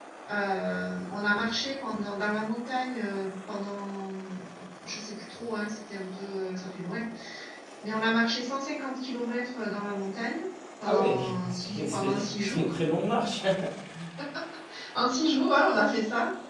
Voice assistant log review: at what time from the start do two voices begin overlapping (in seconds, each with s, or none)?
10.8 s